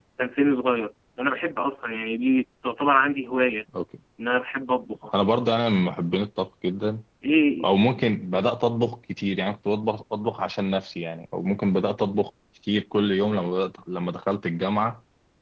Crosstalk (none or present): none